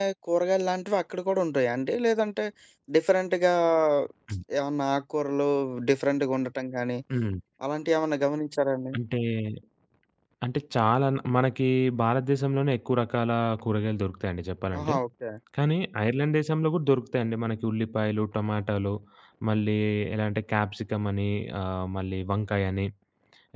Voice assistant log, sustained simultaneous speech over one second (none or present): none